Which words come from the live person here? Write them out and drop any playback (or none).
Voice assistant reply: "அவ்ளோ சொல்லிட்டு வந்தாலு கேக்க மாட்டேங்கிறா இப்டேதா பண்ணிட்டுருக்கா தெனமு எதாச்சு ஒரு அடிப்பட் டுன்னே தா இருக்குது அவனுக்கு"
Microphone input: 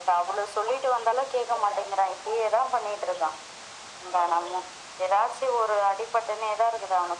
none